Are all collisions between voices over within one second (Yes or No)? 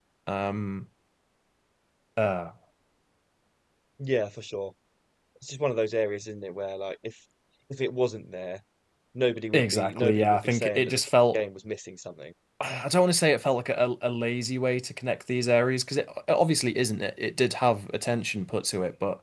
No